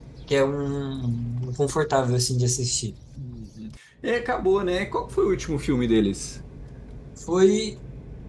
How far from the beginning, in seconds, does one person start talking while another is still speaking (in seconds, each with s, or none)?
none